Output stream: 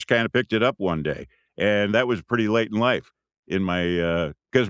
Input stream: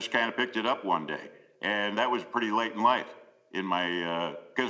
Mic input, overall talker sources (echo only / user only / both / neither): echo only